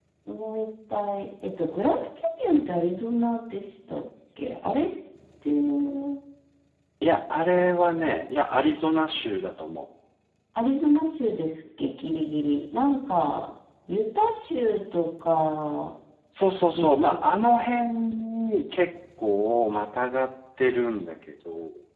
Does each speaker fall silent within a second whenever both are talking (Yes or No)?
Yes